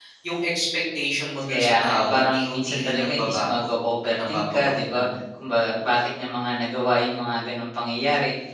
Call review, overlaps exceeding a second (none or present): present